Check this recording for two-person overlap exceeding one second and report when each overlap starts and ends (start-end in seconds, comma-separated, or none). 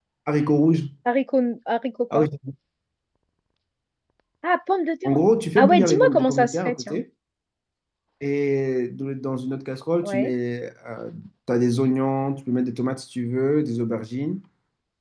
5.6-7.0